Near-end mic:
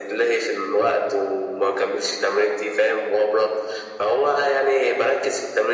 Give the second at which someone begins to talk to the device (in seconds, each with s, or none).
none